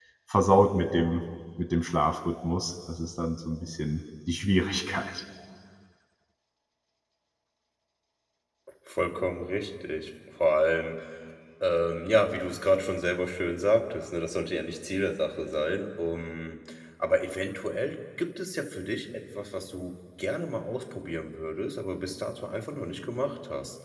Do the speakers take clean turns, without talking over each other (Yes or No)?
Yes